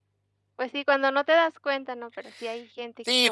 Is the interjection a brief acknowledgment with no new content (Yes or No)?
No